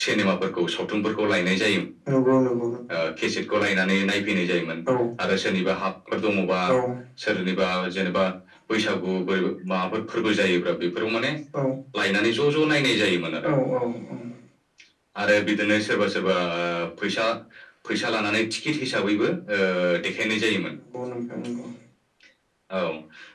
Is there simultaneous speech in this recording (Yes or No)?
No